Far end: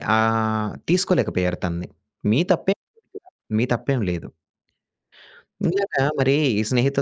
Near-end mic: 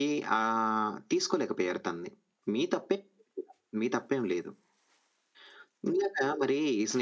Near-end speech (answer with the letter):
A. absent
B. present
A